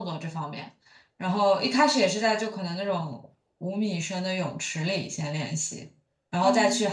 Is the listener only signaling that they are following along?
Yes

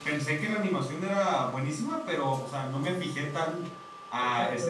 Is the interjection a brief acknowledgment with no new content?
No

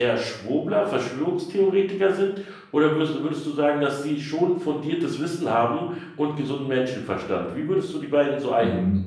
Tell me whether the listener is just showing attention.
No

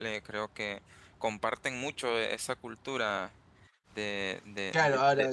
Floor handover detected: Yes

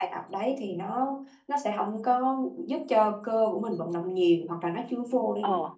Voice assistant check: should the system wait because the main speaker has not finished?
Yes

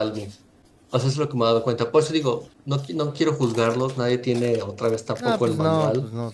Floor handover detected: Yes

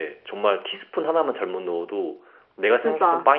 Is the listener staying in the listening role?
Yes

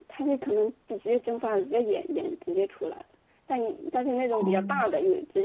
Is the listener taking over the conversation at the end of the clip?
No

